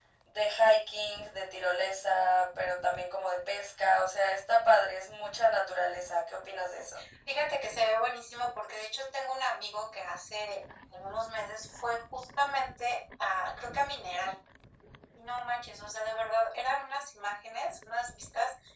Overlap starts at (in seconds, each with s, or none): none